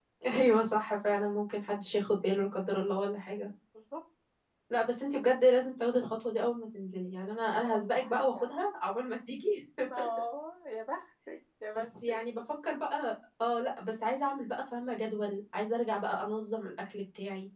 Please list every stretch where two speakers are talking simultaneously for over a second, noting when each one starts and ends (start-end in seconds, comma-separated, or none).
7.3-8.6